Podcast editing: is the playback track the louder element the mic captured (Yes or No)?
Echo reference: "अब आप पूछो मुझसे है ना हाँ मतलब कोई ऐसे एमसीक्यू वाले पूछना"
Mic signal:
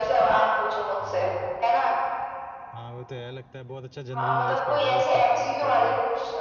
Yes